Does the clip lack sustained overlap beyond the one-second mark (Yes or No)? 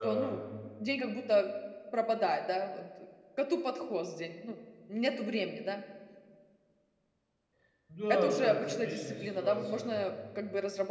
No